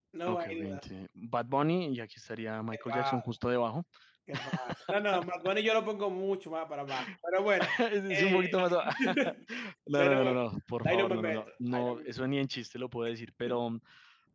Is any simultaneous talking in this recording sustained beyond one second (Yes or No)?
Yes